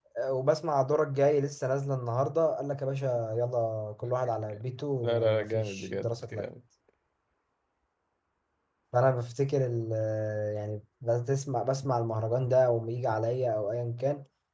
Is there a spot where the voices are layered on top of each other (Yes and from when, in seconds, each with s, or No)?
Yes, from 5.0 s